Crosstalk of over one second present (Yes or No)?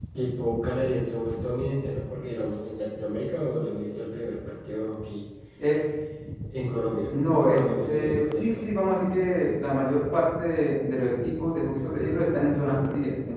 Yes